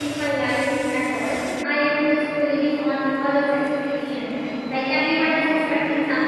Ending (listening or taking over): listening